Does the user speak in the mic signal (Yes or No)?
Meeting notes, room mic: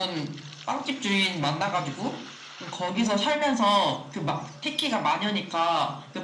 No